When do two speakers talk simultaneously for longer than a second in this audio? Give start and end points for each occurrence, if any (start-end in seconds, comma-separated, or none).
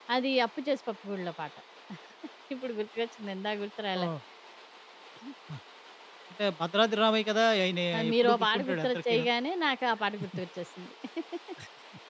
8.0-9.3